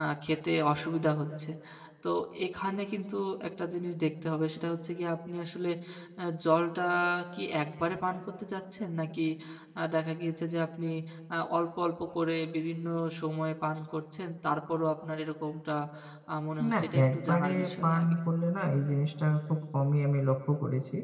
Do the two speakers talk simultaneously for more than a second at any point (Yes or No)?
Yes